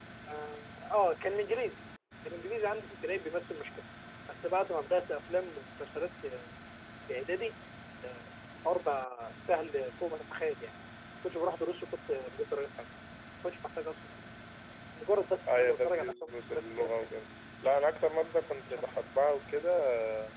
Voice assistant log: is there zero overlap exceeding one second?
No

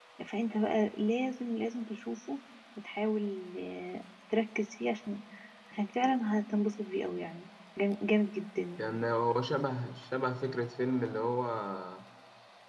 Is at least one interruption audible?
No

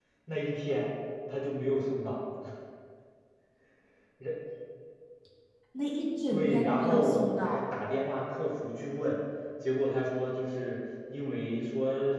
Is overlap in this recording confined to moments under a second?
No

